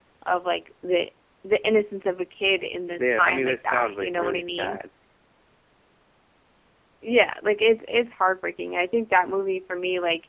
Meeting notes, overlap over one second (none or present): present